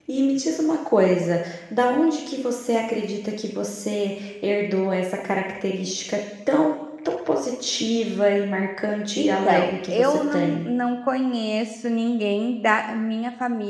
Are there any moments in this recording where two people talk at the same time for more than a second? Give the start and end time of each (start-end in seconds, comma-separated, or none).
9.2-10.7